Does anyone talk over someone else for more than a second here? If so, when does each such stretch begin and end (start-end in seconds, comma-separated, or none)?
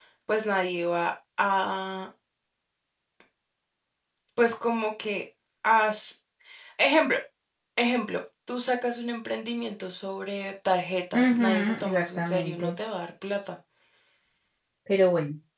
11.1-12.7